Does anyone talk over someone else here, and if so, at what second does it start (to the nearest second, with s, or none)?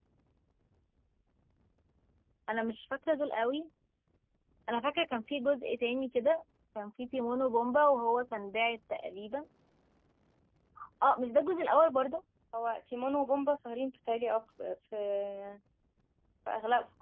none